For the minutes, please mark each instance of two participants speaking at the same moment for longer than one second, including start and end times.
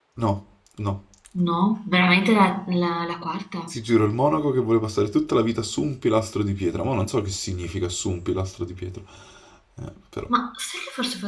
none

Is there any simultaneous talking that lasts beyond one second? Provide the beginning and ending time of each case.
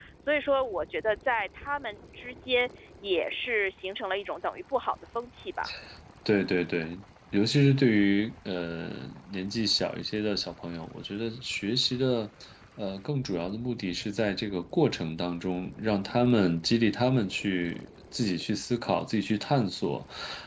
none

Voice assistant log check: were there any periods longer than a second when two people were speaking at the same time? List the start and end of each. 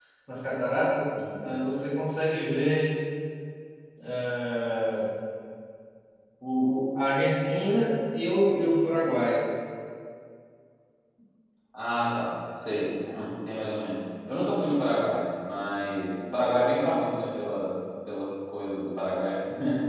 none

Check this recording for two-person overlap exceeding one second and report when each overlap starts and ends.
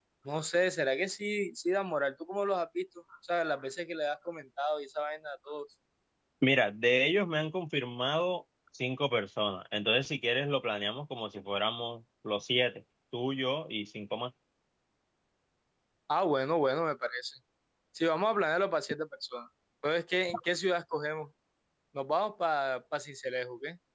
none

